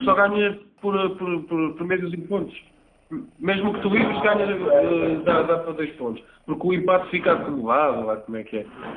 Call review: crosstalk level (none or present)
present